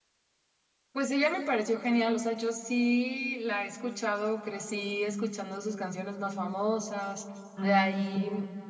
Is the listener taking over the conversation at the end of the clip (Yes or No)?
No